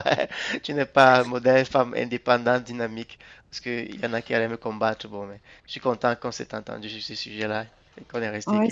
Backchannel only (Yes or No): No